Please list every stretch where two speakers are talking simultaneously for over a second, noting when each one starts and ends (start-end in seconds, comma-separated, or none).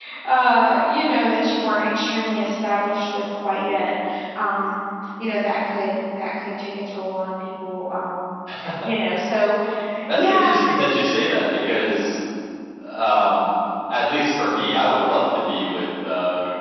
none